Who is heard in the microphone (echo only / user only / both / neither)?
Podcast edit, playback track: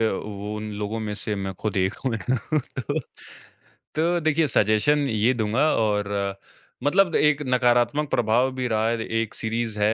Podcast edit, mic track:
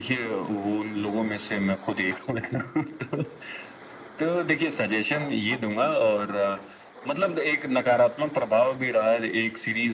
echo only